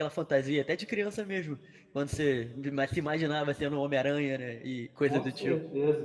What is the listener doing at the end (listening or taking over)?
taking over